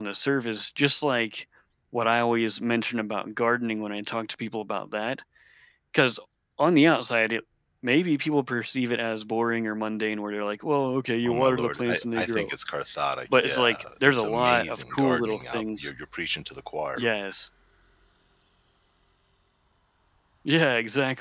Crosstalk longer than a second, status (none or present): present